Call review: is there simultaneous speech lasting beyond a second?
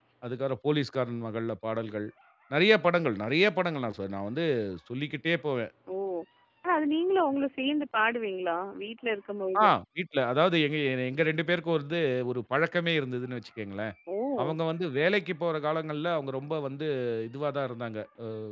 No

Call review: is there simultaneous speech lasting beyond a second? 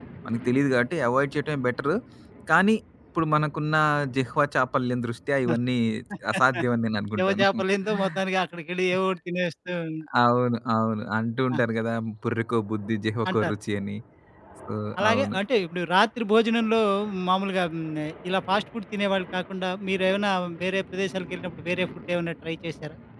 No

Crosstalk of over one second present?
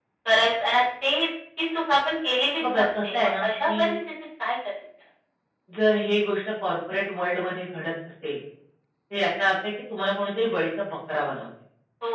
Yes, from 2.6 s

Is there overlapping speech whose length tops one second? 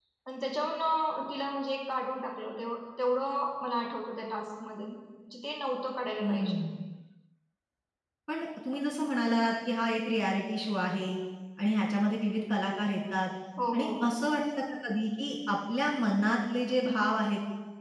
No

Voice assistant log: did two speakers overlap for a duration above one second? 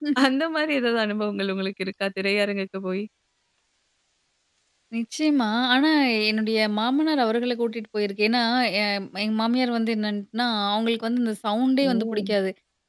No

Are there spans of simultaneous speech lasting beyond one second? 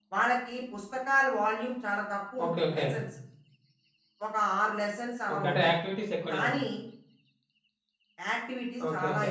No

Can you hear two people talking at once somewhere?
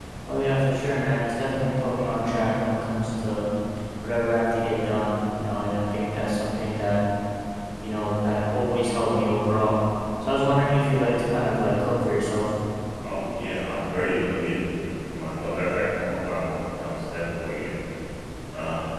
No

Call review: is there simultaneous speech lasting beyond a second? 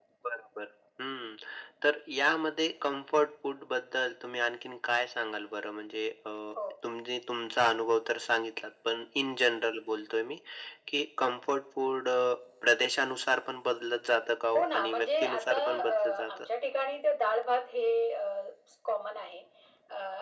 Yes, from 14.5 s

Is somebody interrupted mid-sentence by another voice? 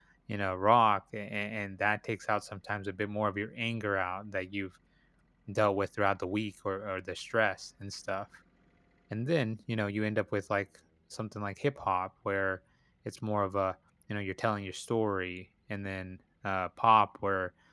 No

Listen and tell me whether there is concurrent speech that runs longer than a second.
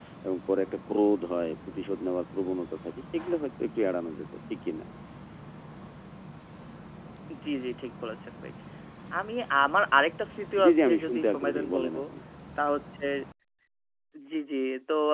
Yes, from 10.6 s

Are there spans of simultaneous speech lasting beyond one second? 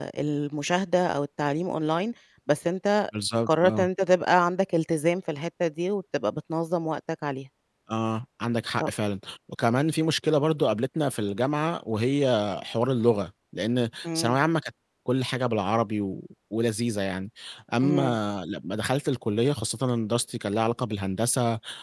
No

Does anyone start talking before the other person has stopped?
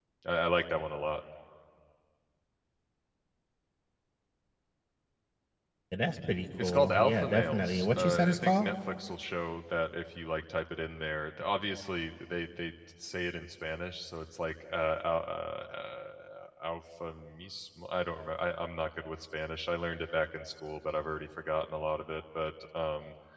Yes, from 6.6 s

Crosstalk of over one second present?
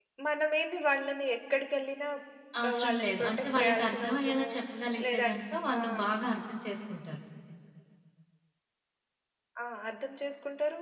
Yes, from 2.7 s

